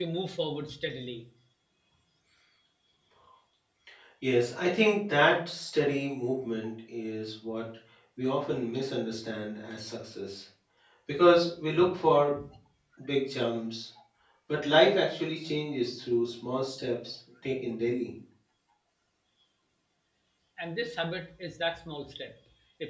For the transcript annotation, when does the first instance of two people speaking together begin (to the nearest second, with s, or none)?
none